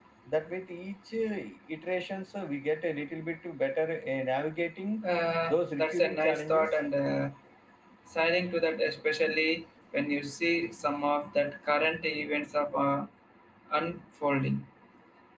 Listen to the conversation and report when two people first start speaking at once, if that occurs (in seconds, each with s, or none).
5.5 s